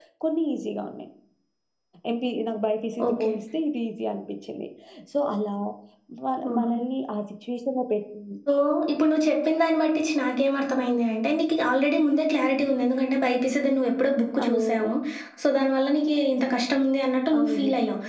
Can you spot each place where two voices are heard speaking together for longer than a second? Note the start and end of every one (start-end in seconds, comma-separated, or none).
none